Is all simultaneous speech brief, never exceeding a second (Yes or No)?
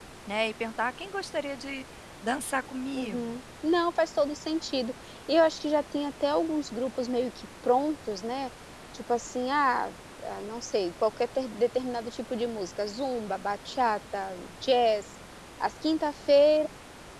Yes